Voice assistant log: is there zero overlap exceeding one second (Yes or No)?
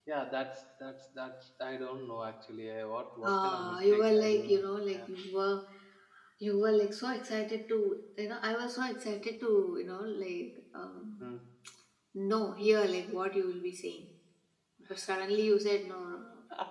No